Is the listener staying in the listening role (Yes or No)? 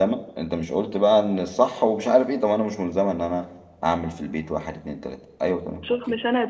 No